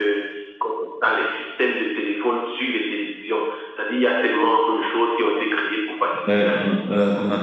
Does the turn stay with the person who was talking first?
No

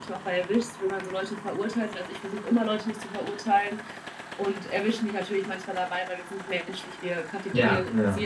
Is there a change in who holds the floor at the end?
No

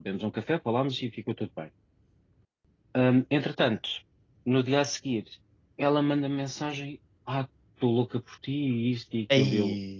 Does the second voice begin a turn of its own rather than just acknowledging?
No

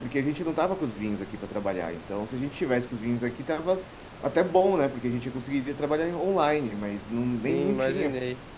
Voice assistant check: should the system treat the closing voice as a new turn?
Yes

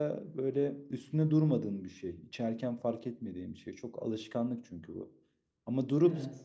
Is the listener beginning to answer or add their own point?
No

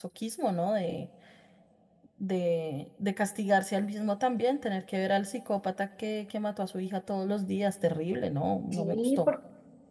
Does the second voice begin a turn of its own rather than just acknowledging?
Yes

